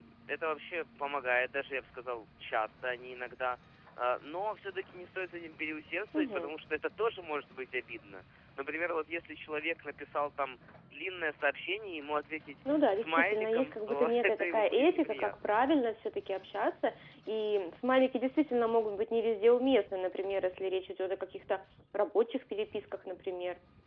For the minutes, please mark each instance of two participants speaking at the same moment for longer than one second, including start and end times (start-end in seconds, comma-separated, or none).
12.9-15.3